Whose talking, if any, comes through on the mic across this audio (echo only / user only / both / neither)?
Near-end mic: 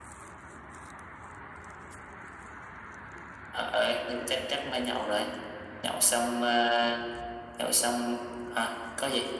echo only